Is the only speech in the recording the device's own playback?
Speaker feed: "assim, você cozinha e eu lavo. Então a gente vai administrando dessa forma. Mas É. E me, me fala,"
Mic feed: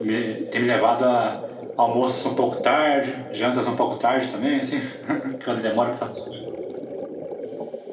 No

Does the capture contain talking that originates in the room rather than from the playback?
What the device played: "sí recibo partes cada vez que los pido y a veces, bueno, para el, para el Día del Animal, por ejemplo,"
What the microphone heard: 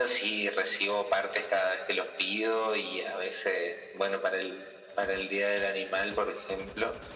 No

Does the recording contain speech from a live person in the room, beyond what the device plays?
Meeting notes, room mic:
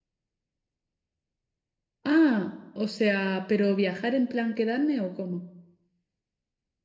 Yes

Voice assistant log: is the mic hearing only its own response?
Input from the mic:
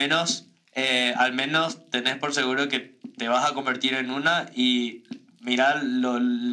Yes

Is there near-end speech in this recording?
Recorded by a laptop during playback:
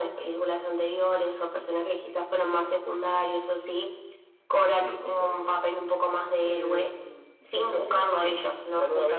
Yes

